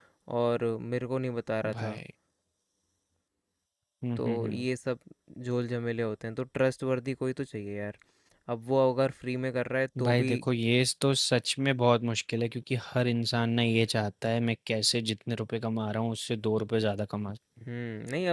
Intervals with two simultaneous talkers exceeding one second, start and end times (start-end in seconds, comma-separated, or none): none